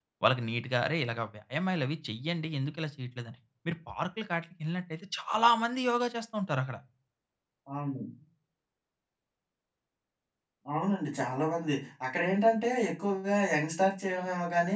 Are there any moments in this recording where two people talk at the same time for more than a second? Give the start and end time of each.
none

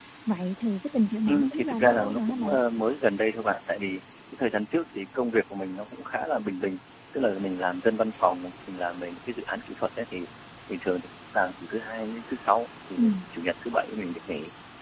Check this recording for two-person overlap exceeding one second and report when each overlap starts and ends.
1.3-2.5

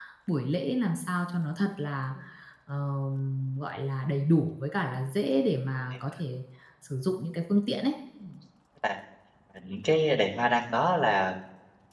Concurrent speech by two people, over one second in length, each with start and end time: none

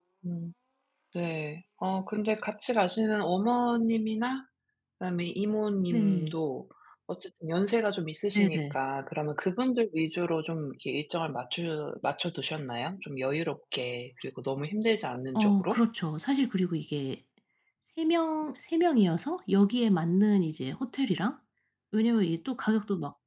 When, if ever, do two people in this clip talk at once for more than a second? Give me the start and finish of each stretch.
none

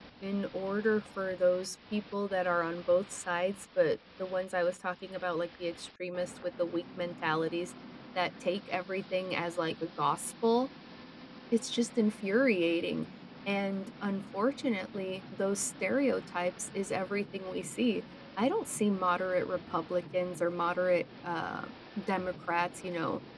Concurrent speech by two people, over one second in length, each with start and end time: none

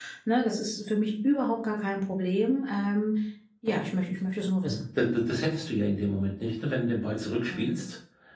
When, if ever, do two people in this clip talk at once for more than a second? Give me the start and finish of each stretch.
none

